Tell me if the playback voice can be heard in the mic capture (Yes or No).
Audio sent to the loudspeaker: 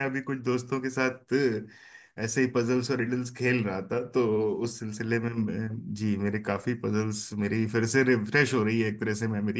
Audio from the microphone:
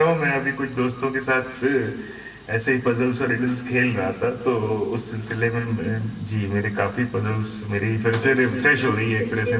Yes